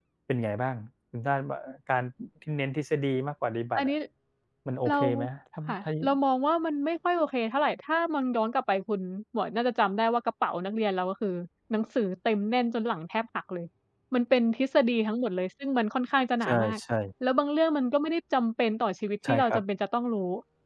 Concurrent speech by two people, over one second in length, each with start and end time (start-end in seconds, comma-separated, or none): none